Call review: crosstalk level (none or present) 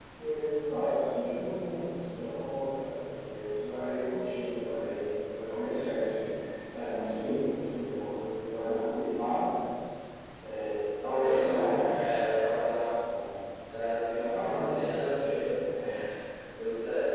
present